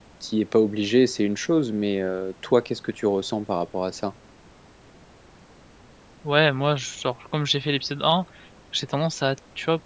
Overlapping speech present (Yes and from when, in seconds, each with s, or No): No